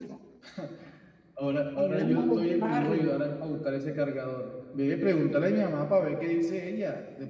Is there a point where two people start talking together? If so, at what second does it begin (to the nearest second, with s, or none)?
2 s